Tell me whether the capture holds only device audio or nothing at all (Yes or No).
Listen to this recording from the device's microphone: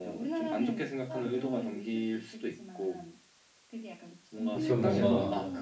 No